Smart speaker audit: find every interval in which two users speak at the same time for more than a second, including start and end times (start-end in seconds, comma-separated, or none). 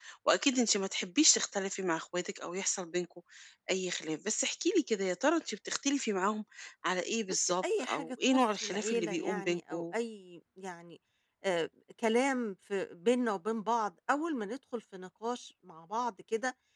7.3-9.9